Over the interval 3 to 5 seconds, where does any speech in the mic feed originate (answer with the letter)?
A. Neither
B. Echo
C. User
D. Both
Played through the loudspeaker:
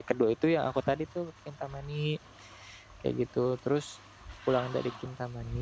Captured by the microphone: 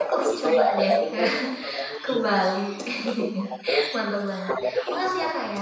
D